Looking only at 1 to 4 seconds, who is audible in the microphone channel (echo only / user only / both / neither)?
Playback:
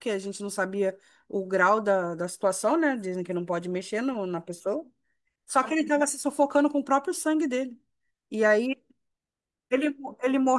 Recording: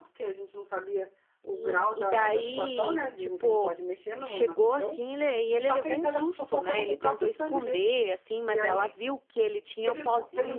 both